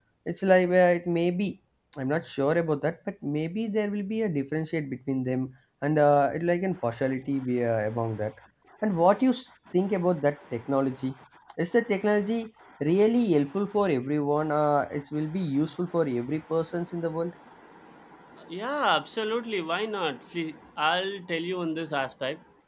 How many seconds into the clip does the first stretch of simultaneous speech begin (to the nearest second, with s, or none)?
none